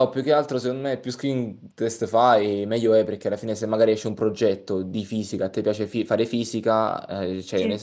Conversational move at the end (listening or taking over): listening